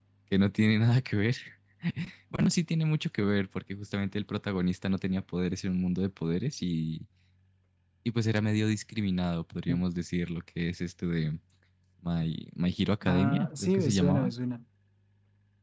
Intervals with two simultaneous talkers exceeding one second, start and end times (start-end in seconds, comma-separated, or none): 13.1-14.3